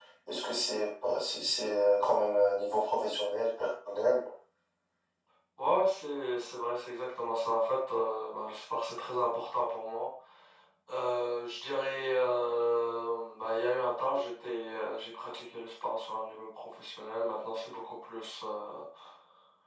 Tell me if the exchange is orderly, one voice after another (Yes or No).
Yes